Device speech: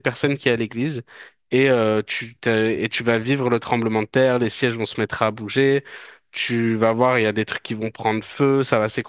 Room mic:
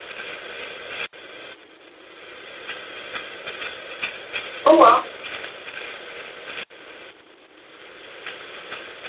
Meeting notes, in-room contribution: present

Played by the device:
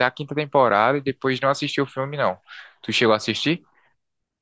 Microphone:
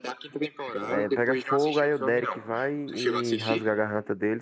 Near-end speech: present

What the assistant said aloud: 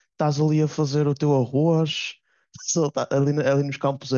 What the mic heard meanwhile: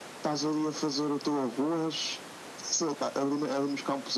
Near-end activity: none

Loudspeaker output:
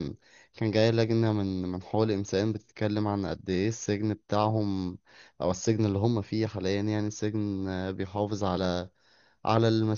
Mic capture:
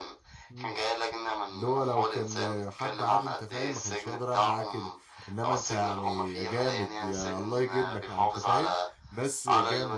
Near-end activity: present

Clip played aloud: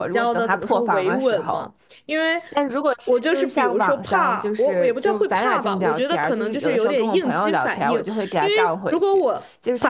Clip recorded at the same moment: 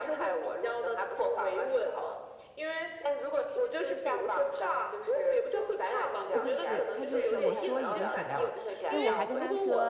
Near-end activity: present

